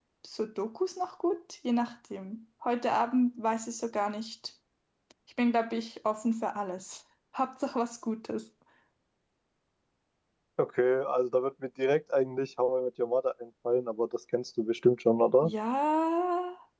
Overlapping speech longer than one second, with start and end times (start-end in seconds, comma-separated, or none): none